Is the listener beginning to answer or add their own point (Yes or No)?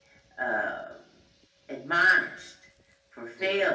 Yes